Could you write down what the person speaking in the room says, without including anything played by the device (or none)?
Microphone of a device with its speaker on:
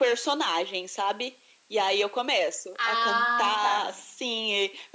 Ah, tá.